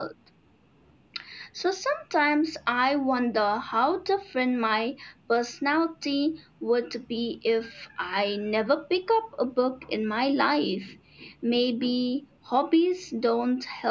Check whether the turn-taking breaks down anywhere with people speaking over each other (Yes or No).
No